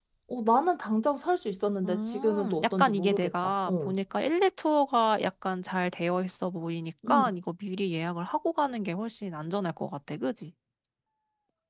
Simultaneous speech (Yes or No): Yes